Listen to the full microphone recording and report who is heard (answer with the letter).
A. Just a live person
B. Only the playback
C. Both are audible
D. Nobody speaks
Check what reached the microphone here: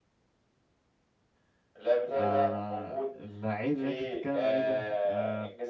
C